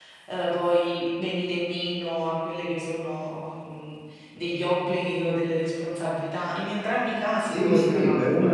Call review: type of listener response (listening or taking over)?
taking over